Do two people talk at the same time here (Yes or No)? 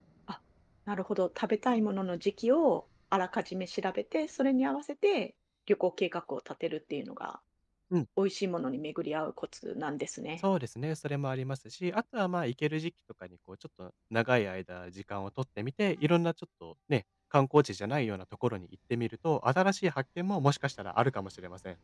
No